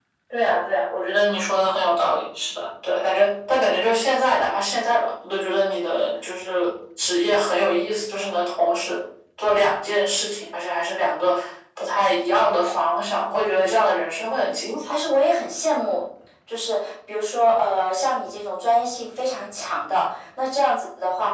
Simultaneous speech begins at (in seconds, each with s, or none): none